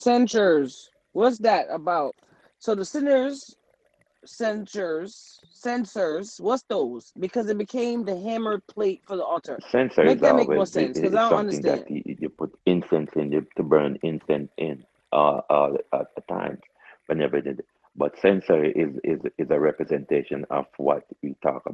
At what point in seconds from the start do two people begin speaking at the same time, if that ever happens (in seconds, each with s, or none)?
10.0 s